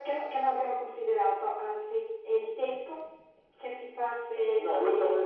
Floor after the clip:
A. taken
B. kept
A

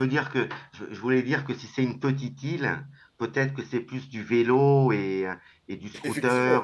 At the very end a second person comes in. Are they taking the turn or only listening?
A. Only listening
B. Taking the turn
B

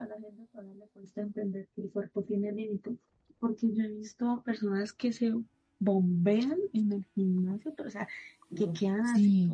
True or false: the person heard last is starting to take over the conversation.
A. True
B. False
B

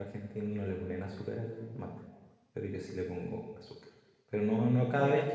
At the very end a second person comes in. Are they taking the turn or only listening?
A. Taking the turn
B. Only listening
B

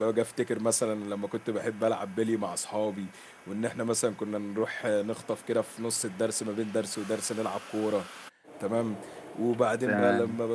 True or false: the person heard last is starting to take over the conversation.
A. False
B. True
A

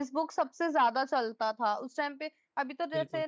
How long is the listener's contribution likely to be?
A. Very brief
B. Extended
A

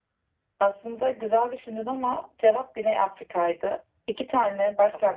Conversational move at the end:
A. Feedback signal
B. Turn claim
A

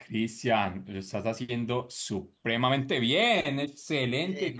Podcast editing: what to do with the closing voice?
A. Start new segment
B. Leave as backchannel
A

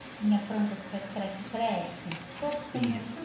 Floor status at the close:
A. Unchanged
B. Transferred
B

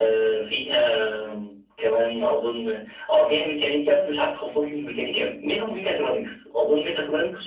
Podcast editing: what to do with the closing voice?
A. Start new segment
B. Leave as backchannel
B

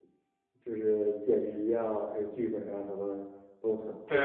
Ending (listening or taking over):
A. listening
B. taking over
B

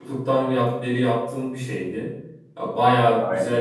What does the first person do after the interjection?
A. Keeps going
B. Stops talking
A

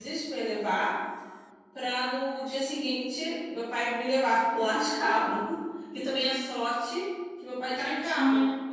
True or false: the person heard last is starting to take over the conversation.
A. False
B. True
A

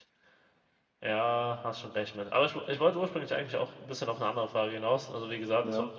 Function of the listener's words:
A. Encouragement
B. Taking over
A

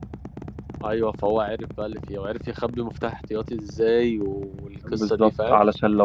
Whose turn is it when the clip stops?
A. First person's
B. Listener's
B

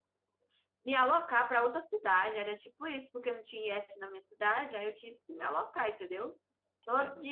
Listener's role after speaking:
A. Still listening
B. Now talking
A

